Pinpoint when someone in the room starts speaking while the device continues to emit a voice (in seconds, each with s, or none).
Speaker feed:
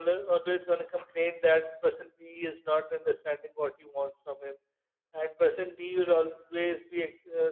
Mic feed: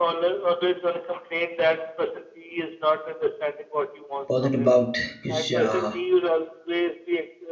4.3 s